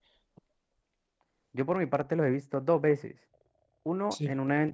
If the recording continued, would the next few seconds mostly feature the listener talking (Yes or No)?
No